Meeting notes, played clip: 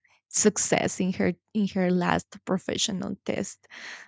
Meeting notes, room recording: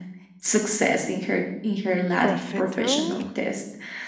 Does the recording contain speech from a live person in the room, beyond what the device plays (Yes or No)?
Yes